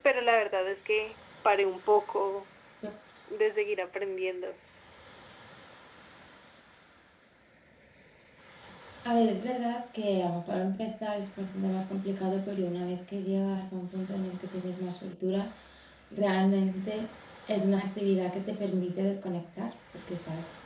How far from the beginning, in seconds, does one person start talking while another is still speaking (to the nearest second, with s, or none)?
none